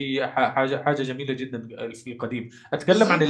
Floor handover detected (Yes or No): Yes